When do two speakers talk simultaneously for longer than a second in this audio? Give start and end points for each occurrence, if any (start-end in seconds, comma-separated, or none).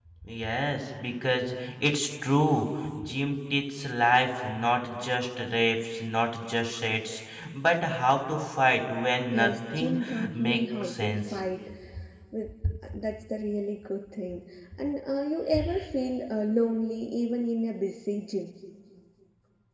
9.3-11.2